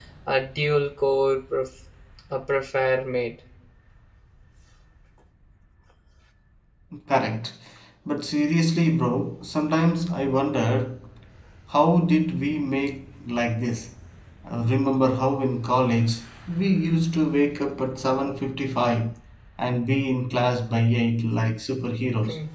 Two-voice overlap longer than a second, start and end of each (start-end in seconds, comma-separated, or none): none